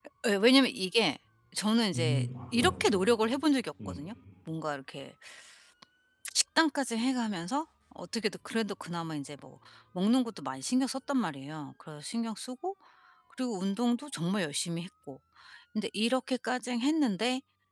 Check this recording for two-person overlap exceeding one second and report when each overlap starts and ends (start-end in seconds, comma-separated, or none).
1.9-3.1